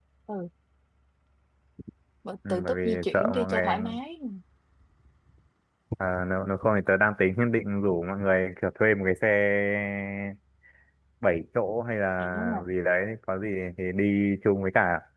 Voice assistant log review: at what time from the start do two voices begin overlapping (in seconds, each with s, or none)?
2.5 s